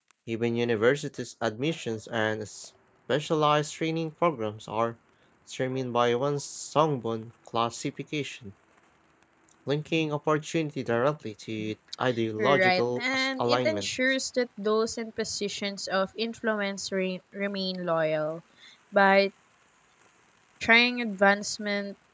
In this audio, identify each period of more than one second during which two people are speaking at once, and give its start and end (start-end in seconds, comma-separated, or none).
12.4-13.9